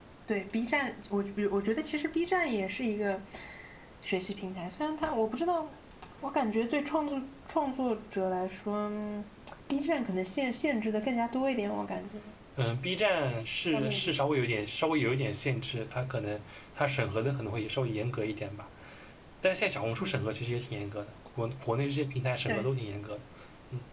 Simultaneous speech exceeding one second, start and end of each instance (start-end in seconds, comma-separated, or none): none